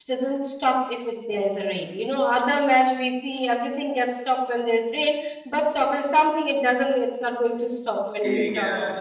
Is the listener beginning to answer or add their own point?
Yes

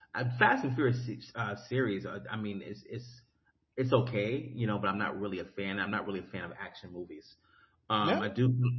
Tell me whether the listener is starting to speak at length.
No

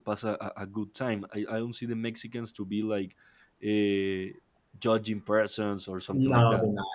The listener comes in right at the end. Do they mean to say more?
Yes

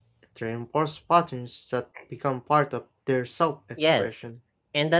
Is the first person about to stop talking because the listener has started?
Yes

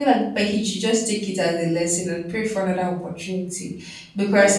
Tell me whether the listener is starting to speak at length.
Yes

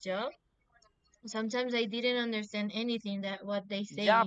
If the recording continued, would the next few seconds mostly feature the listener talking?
Yes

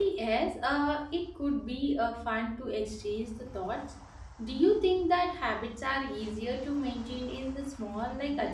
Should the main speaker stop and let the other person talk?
Yes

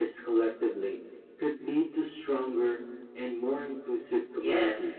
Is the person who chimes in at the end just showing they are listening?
No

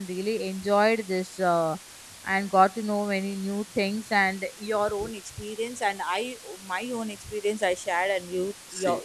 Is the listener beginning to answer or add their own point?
No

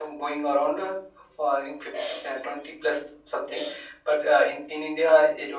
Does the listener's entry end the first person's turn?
No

